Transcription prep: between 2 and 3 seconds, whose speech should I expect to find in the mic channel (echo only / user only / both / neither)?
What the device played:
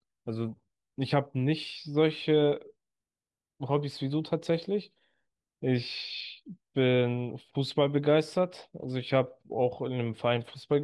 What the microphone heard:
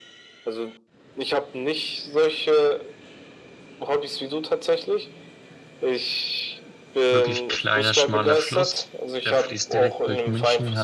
echo only